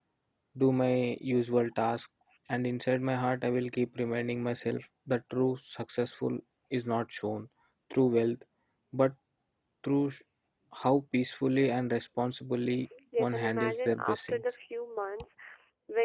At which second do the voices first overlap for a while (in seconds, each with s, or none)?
13.2 s